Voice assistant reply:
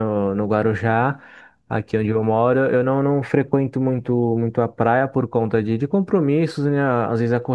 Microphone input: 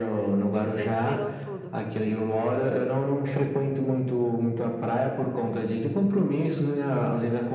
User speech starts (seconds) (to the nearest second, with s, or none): 1 s